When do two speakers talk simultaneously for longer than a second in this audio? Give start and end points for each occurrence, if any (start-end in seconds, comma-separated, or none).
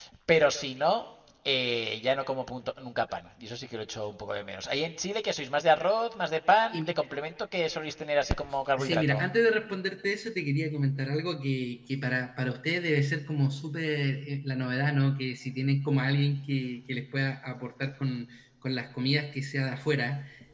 none